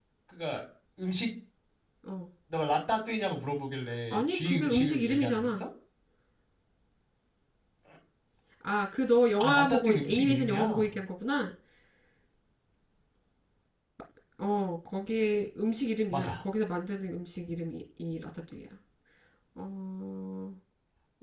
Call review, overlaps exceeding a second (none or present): present